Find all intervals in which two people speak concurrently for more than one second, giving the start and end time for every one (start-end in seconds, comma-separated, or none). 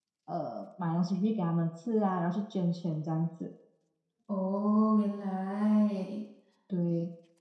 none